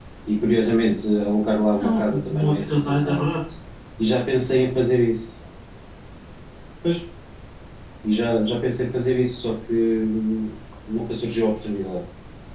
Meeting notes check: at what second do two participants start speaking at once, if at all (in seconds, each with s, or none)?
1.7 s